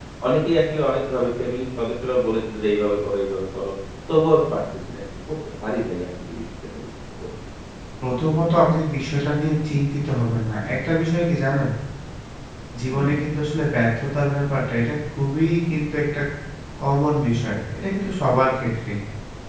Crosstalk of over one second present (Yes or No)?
No